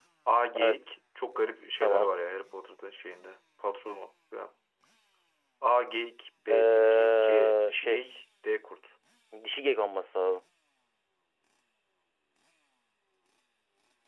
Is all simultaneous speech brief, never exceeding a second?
No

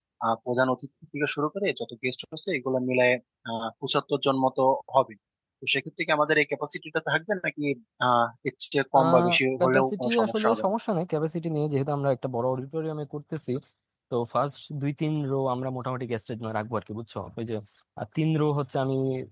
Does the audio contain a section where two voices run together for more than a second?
Yes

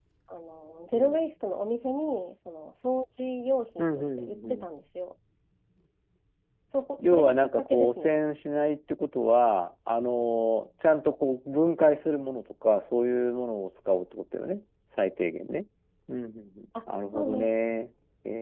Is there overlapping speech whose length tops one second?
Yes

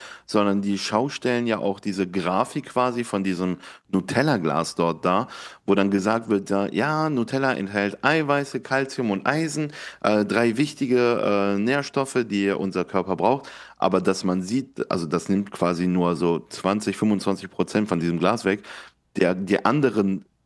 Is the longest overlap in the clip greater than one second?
No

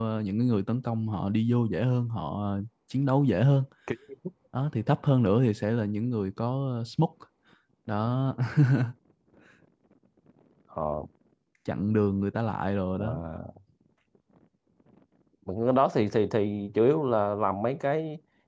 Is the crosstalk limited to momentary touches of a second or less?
Yes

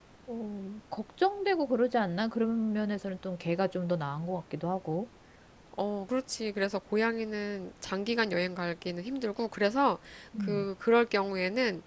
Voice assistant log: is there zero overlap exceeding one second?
Yes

